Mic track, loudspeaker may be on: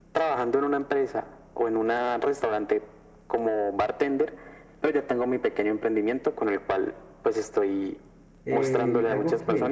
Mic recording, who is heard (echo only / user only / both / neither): both